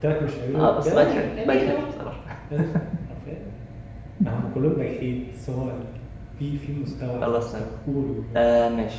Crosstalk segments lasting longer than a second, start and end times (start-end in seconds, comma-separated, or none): 0.5-1.8